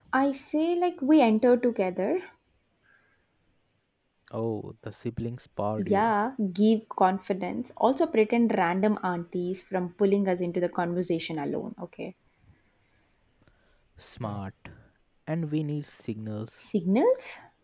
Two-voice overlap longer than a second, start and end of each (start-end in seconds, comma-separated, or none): none